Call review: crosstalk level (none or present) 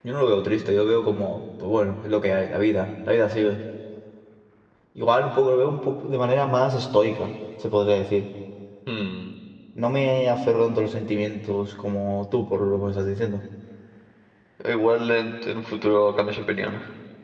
none